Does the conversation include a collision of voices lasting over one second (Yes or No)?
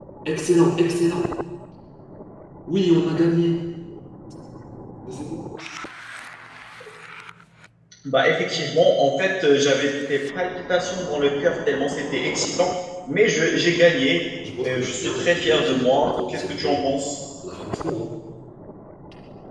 Yes